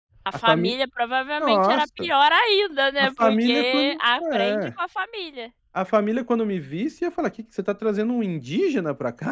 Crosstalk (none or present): present